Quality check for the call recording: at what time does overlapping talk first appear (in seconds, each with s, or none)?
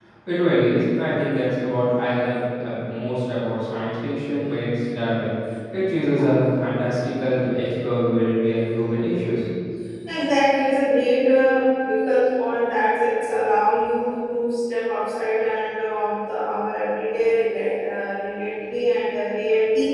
none